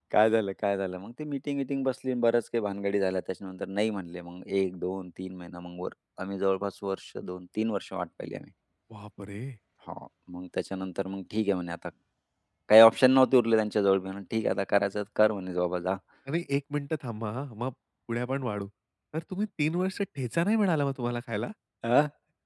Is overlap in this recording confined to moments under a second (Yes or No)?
Yes